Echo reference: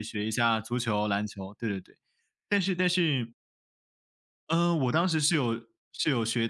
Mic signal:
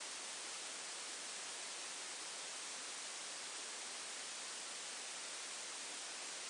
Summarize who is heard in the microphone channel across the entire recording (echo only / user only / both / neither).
neither